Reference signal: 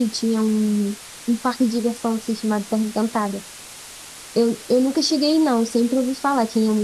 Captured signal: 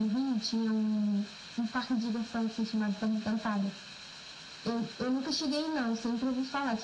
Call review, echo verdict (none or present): present